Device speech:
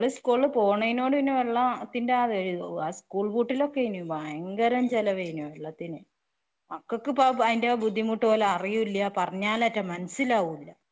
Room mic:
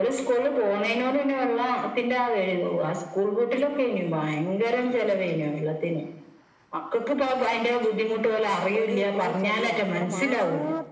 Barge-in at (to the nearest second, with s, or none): 9 s